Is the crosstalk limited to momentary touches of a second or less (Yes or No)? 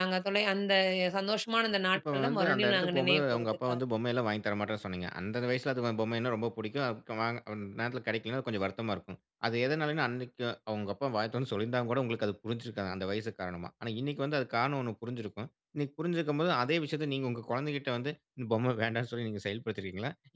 No